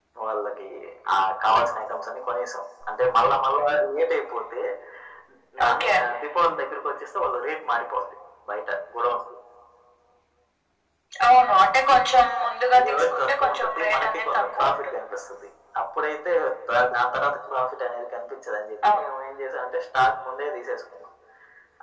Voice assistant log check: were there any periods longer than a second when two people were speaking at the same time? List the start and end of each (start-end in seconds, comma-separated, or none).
12.8-15.0